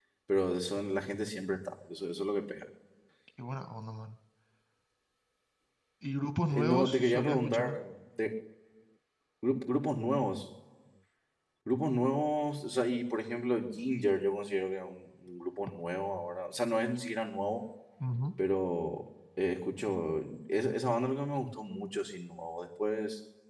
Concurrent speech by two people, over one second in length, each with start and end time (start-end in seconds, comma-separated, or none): 6.5-7.7